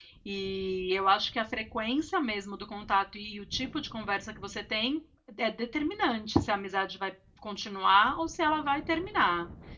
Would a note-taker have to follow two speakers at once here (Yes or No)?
No